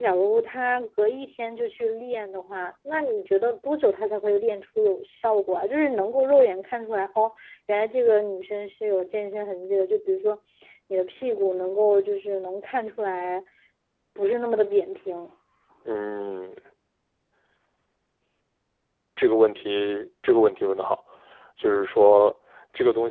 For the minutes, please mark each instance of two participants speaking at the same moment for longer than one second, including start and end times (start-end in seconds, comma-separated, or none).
none